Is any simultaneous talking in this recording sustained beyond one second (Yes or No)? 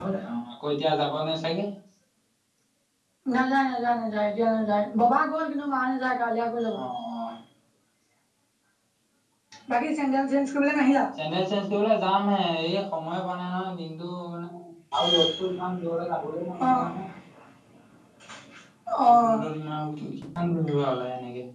No